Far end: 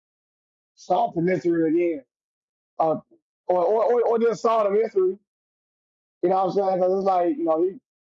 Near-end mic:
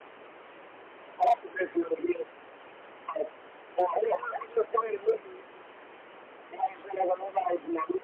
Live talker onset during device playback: none

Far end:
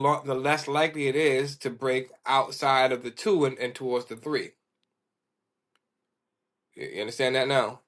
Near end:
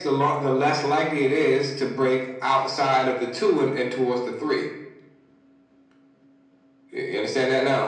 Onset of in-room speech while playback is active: none

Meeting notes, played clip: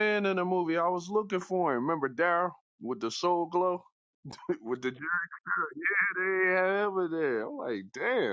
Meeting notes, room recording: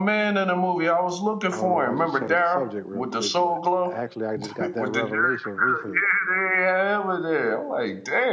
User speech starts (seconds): 2 s

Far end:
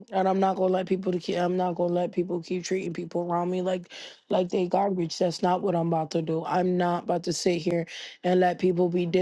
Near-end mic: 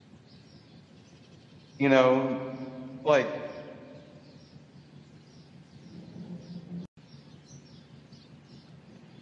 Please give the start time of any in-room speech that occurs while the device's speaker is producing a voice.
2 s

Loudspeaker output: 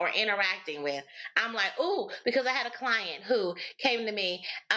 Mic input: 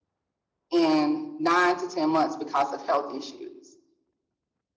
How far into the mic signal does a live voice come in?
1 s

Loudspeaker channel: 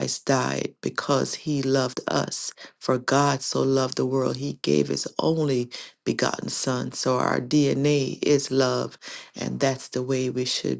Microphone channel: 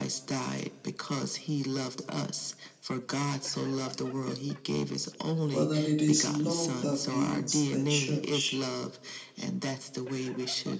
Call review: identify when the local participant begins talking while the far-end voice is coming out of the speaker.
6 s

